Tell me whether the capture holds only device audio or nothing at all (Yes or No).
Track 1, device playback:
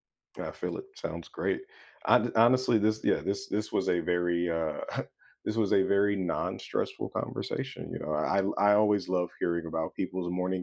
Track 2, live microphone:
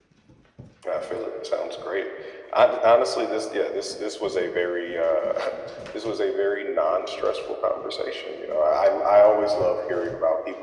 Yes